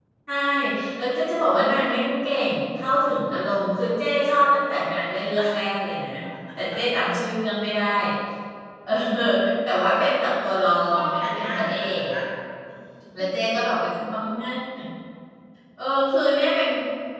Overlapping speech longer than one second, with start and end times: 10.7-12.0

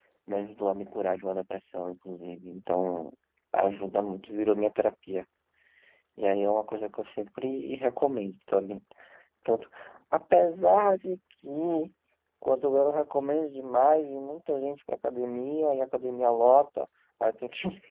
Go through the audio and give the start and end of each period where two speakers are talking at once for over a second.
none

